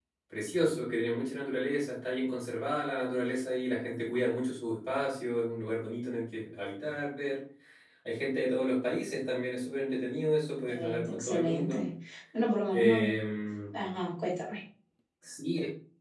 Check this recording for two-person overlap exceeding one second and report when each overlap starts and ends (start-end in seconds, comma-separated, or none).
10.7-11.9